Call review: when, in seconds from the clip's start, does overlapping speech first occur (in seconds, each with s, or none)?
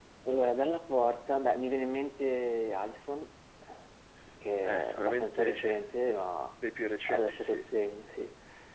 4.6 s